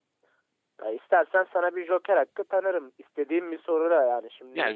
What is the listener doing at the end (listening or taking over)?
taking over